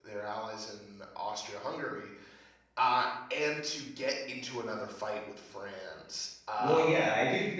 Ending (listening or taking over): taking over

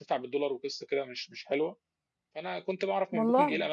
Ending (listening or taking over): listening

